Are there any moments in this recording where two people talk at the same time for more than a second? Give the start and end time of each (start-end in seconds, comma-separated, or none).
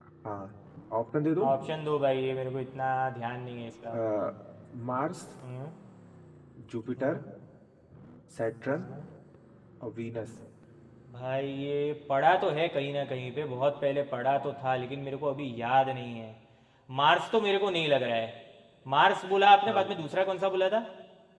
none